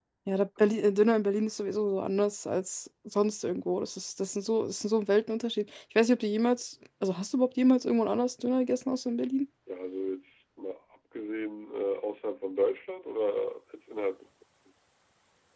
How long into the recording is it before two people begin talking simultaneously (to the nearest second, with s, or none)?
none